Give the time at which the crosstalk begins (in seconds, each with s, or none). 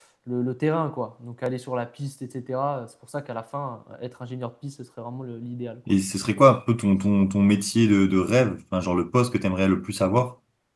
none